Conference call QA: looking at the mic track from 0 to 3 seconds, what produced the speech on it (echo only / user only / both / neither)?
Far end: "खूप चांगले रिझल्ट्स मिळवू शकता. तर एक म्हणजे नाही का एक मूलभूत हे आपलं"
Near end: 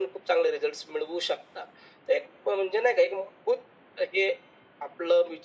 echo only